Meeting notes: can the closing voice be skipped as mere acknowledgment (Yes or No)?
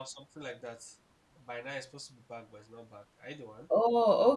No